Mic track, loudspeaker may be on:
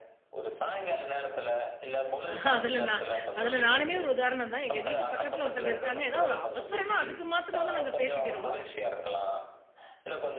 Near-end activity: present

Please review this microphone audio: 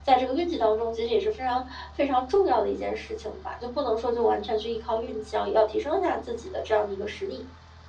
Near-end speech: none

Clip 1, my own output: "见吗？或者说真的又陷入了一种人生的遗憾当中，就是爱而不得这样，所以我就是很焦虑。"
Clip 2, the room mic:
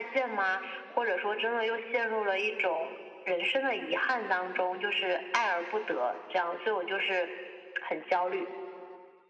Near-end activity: none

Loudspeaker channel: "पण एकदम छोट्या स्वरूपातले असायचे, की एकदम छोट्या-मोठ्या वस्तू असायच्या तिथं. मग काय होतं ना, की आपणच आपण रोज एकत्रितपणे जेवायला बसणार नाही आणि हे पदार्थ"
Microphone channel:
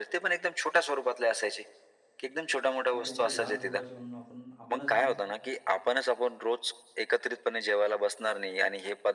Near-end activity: present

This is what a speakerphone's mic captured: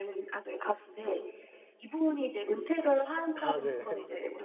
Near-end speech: present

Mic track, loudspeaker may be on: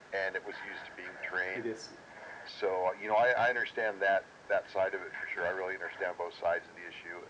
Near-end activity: present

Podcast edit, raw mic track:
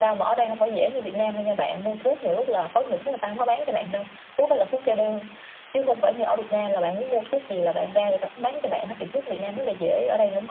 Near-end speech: none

